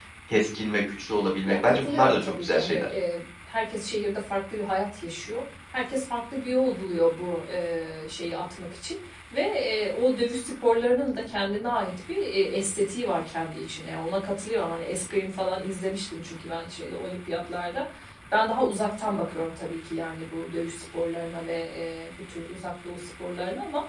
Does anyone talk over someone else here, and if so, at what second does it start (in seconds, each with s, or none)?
1.4 s